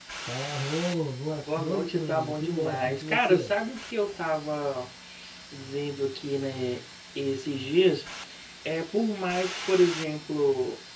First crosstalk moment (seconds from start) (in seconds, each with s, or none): 1.5 s